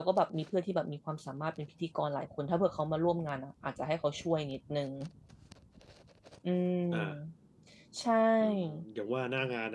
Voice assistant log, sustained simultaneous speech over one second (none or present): none